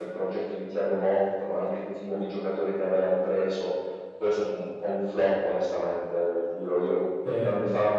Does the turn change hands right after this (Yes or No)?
No